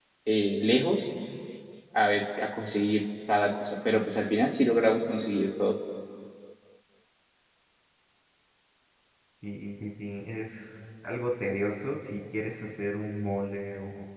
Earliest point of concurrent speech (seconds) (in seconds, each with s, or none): none